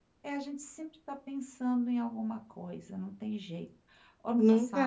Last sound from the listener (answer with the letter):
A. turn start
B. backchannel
A